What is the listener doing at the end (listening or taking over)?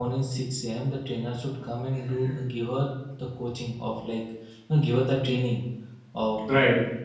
listening